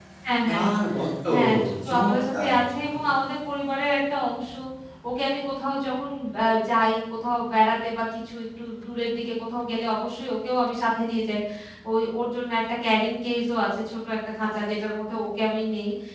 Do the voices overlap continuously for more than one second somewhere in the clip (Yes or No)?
Yes